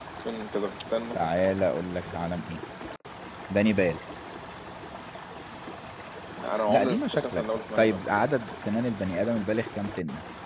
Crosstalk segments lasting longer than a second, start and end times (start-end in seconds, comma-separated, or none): 6.7-8.0